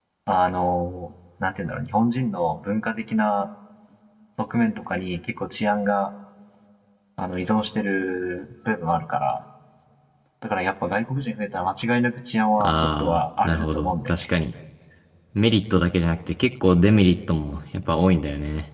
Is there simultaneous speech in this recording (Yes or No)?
Yes